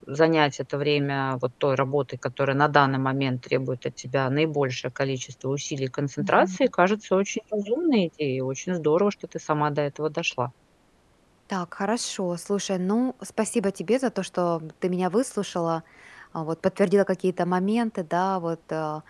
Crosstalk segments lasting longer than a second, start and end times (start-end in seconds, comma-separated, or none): none